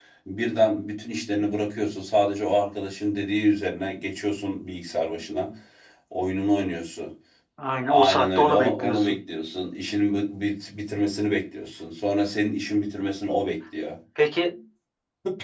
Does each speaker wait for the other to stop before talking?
No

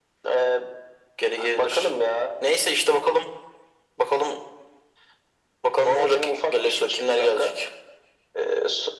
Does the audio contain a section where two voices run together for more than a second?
Yes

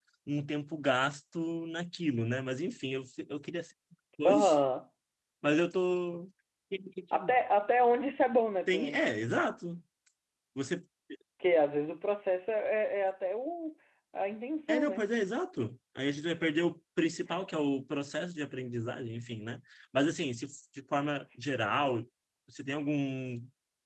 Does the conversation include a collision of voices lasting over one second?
No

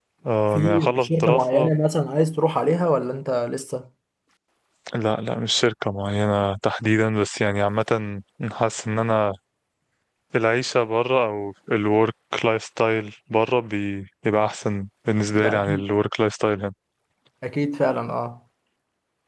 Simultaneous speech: Yes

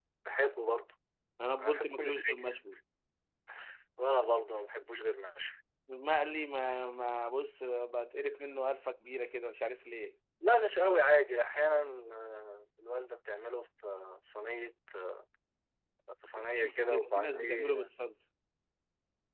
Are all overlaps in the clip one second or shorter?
No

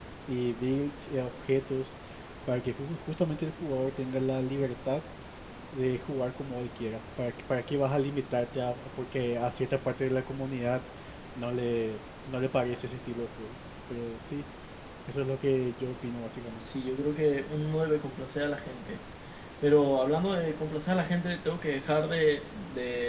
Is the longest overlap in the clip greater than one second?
No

